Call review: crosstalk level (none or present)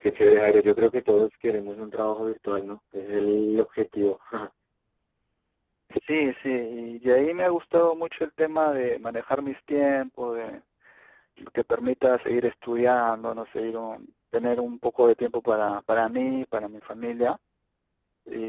none